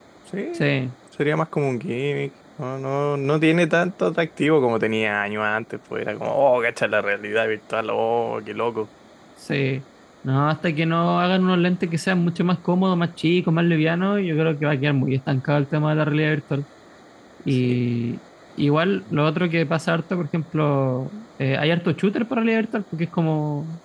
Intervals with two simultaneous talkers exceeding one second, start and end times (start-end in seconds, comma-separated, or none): none